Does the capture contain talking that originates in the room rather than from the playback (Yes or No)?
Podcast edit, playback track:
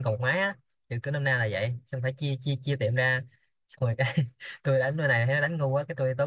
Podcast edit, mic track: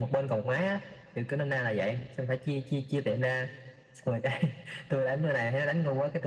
No